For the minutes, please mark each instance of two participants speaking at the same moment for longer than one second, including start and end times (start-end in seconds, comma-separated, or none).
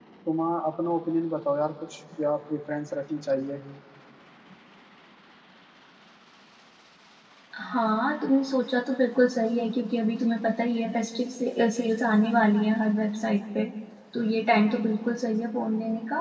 none